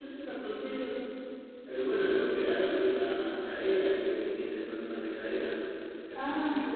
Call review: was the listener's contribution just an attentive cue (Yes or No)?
Yes